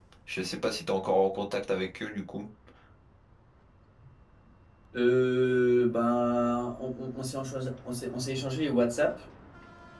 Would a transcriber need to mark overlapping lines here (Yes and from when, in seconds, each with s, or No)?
No